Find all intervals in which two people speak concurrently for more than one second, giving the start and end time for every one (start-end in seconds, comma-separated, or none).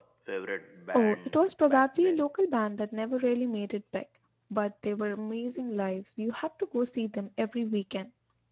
0.9-2.3